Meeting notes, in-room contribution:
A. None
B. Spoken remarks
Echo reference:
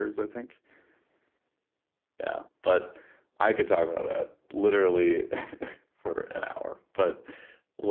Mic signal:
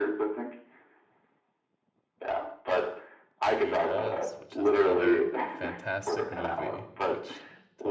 B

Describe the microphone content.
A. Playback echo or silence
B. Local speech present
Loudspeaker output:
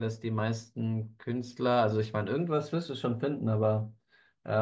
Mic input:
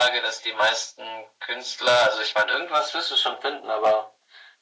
A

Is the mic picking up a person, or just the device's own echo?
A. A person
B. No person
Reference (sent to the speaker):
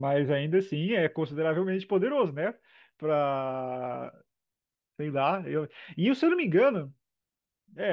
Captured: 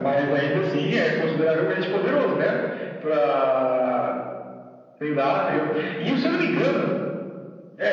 B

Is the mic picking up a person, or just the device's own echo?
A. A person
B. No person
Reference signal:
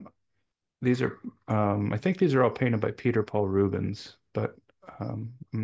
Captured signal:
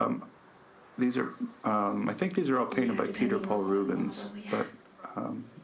A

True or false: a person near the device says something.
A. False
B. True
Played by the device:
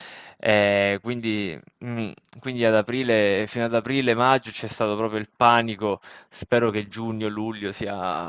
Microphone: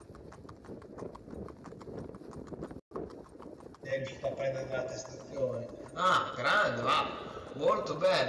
B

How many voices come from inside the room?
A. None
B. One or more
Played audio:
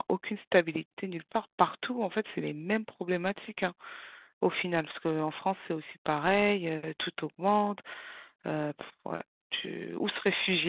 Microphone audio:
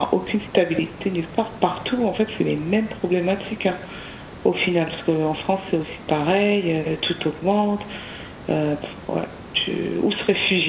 A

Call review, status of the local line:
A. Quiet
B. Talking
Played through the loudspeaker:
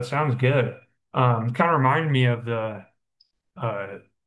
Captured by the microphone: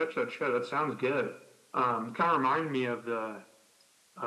A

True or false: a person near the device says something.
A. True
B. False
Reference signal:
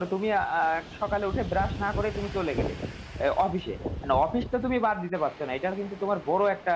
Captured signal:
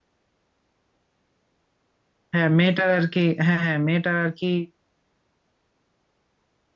A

